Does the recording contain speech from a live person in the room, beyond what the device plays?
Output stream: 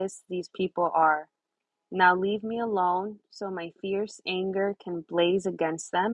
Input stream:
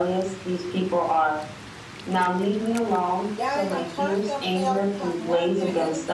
Yes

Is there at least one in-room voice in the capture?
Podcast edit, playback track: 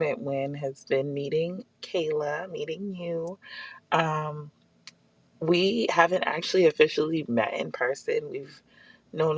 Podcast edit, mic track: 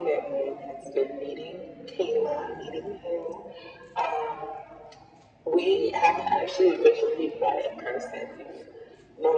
No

